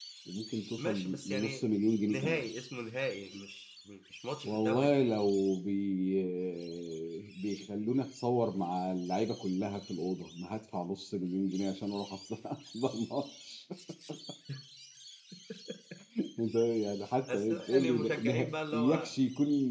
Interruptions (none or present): present